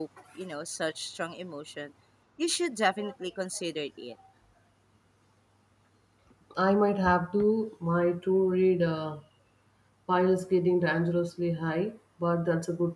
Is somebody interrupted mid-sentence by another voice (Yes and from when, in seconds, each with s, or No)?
No